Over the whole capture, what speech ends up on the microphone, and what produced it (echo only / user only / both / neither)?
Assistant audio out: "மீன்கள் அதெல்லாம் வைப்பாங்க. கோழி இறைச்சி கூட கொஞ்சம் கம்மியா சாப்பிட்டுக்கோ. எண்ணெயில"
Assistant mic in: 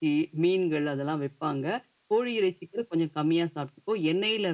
echo only